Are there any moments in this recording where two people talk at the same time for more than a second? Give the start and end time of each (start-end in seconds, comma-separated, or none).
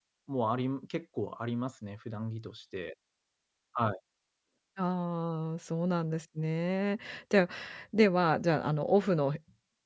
none